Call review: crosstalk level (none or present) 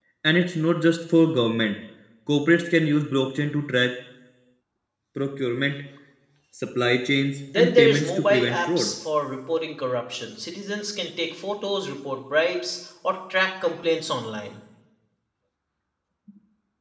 present